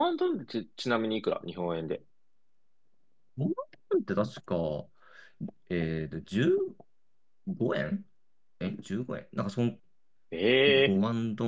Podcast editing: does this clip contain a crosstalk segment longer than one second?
No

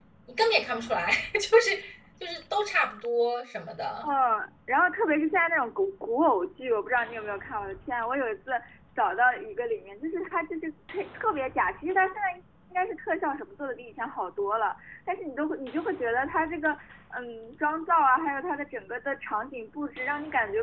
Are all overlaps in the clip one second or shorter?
Yes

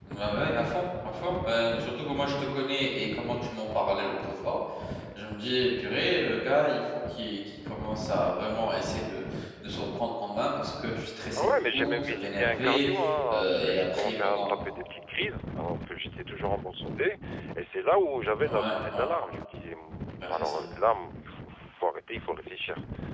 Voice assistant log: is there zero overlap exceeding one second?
No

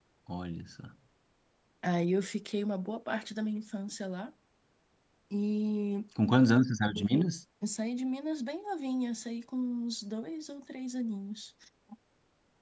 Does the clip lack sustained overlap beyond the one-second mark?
Yes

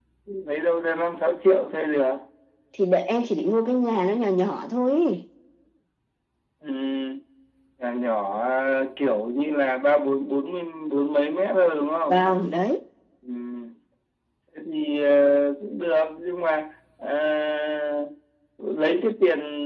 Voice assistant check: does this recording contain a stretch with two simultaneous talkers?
No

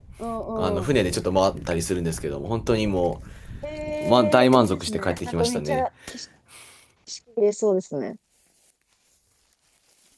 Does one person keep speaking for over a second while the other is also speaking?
Yes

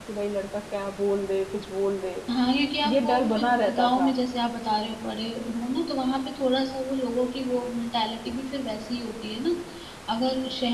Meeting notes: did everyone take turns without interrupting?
No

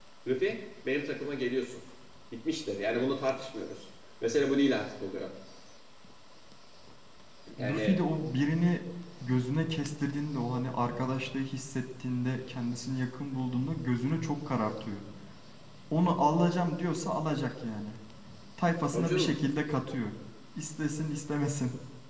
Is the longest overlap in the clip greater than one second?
No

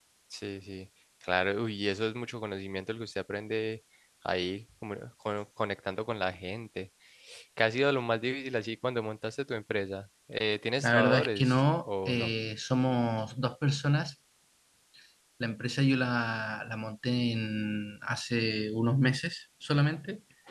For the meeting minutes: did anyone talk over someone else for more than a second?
Yes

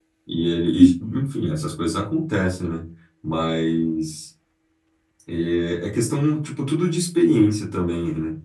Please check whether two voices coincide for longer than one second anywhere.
No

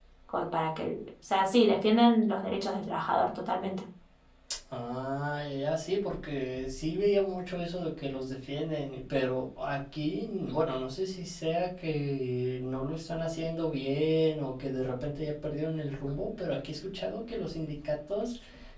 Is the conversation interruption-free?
Yes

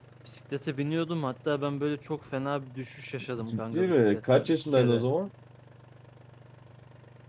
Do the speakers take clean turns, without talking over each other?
No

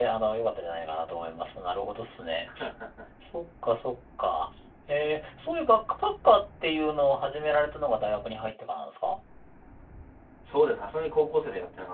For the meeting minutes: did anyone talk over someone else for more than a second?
No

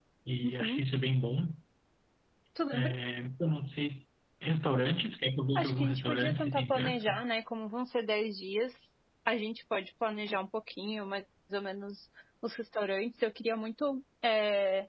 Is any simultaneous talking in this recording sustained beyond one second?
Yes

